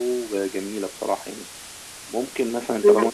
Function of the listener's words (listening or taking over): taking over